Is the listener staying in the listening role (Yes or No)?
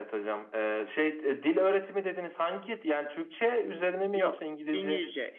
No